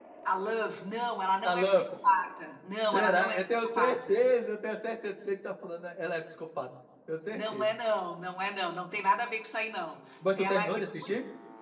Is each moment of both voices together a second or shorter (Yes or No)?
No